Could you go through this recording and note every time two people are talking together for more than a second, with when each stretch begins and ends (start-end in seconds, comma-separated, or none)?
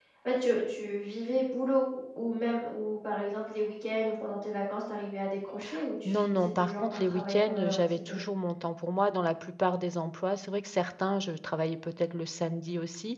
6.1-8.2